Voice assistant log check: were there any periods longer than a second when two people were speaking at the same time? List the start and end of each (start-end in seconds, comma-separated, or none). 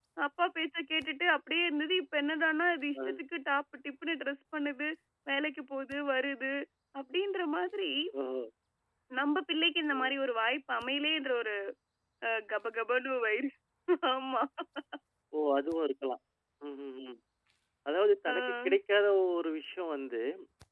none